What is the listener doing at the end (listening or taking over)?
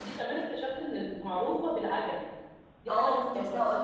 taking over